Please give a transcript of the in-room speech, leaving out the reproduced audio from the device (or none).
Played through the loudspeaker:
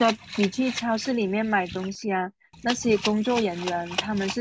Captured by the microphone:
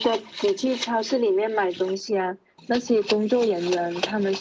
none